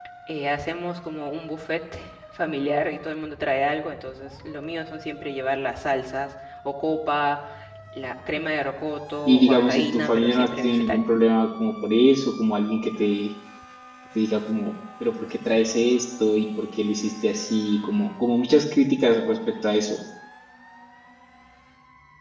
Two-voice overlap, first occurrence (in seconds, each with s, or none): 9.3 s